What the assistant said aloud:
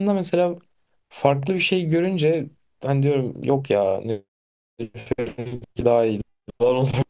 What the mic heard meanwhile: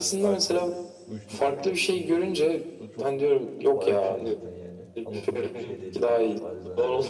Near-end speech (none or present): present